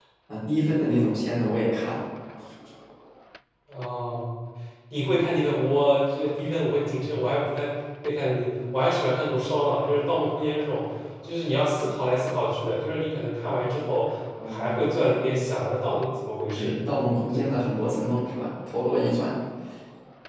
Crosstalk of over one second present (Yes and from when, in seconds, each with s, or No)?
No